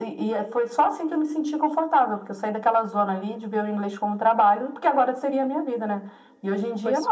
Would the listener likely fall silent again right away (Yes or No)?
Yes